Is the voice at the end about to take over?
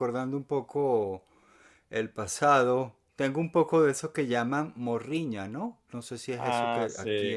Yes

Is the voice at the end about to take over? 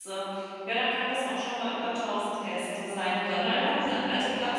No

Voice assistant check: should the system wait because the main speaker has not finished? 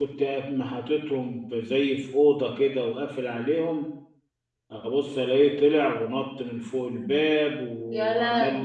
Yes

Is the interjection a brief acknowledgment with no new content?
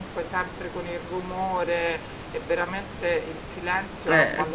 Yes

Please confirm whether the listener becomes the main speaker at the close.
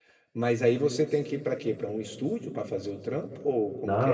Yes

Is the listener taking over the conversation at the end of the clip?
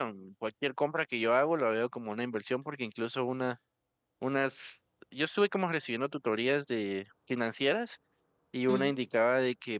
No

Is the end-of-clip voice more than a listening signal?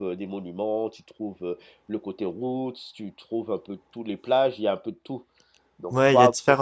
Yes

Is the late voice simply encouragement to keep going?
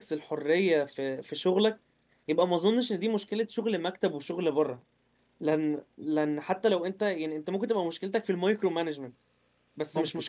Yes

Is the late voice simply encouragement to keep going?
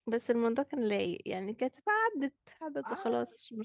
No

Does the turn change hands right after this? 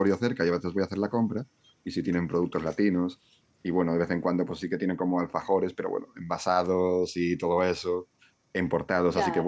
No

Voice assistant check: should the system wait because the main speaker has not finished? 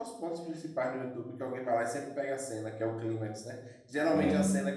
Yes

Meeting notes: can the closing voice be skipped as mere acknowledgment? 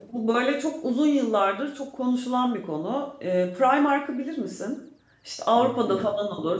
Yes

